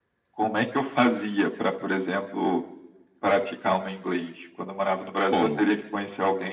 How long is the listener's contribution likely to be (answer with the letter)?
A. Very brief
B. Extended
A